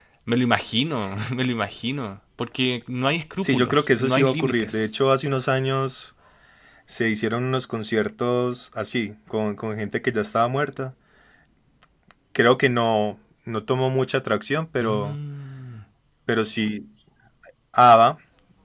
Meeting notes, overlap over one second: present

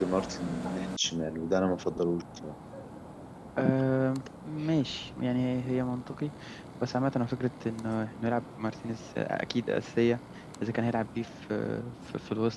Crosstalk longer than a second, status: none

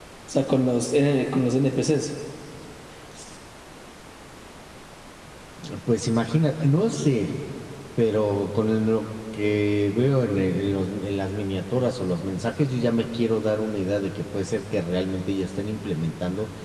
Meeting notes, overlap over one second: none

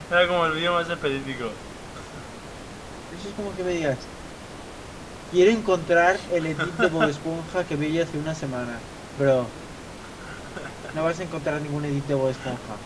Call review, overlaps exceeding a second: none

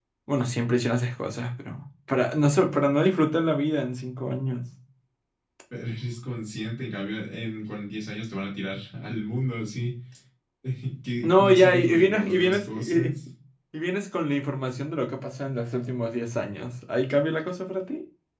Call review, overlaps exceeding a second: present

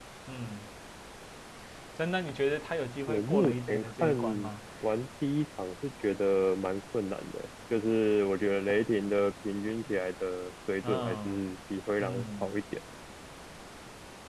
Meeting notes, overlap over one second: present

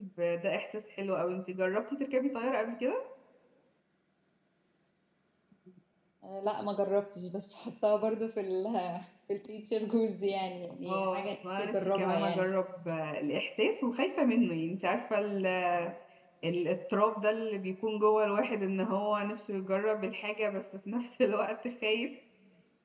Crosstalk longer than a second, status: present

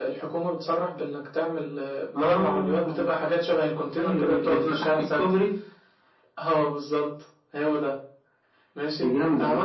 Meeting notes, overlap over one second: present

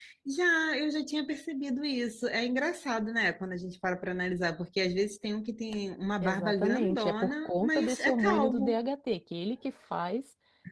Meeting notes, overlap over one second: present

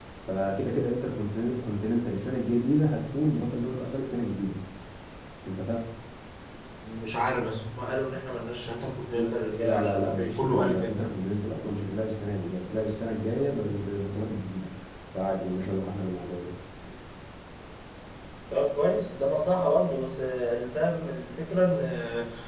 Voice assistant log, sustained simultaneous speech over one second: present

